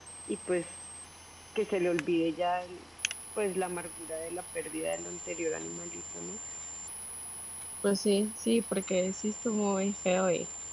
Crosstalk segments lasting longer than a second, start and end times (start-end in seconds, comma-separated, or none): none